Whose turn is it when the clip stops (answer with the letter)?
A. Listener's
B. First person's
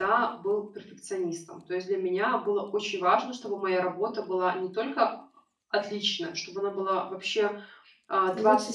B